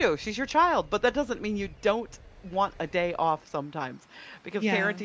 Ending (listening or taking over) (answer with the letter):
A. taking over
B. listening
B